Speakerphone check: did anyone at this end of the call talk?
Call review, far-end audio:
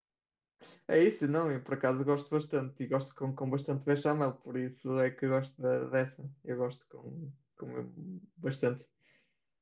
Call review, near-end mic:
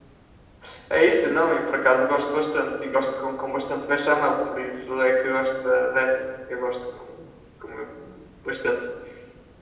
No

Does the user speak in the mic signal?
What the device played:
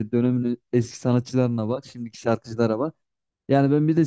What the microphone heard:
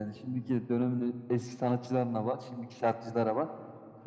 No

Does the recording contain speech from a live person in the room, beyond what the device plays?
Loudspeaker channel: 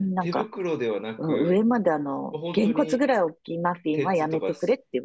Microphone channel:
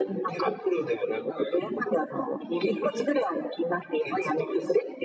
No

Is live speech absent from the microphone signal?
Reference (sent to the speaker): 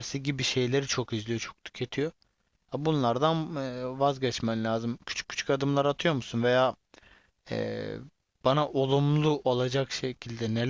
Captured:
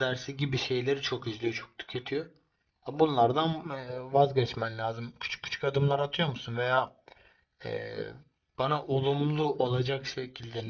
Yes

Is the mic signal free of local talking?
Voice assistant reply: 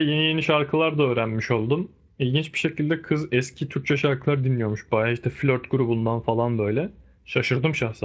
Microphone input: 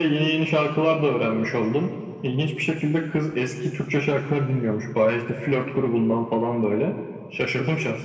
Yes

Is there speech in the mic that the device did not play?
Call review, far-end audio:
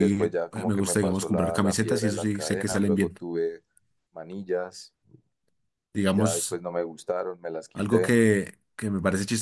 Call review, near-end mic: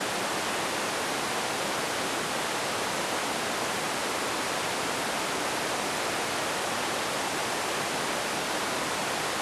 No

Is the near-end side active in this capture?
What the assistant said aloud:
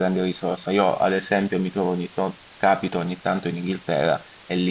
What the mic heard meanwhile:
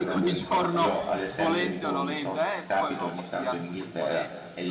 Yes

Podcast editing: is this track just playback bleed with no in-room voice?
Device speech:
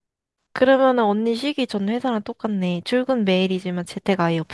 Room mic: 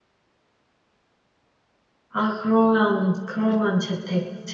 No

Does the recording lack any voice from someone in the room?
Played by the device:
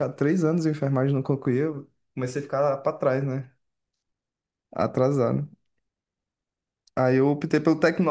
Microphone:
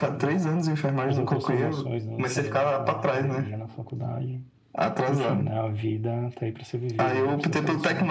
No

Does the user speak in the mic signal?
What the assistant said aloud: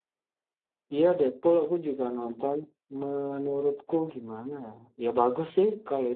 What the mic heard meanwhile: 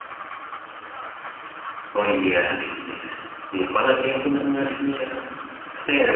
Yes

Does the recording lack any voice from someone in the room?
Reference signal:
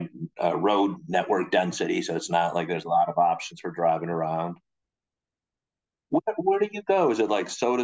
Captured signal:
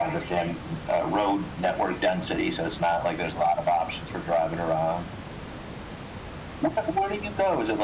Yes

